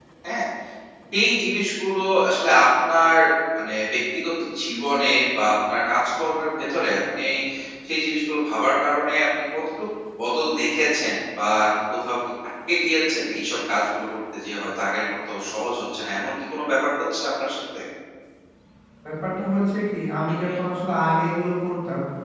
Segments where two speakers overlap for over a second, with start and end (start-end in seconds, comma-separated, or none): none